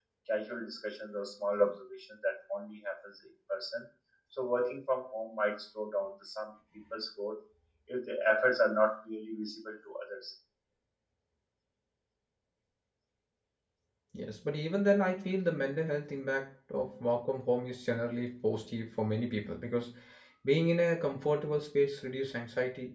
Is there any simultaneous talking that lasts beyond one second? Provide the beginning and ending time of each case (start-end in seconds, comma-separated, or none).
none